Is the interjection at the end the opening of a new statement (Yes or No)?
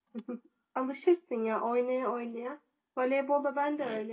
No